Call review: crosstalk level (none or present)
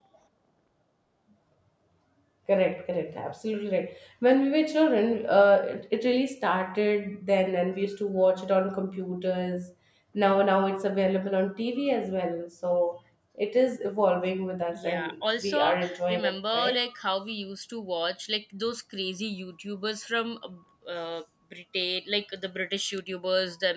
present